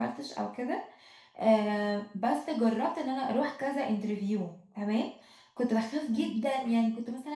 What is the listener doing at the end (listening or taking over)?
listening